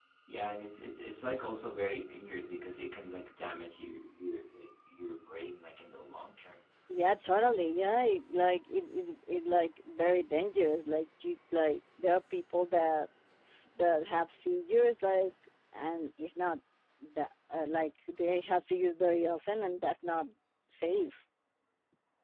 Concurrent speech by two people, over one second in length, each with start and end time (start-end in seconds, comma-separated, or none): none